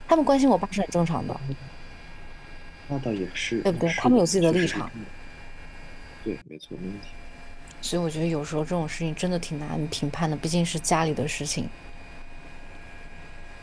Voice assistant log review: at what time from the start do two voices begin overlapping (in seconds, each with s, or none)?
3.6 s